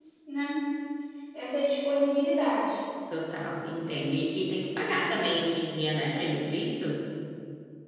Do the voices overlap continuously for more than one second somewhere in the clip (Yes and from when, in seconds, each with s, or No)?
No